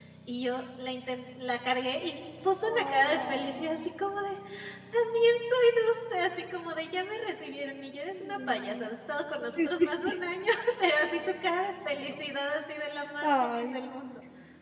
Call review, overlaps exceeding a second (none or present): present